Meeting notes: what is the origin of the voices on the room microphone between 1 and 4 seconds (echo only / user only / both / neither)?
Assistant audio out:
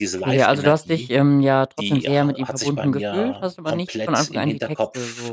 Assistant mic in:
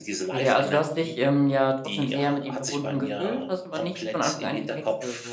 echo only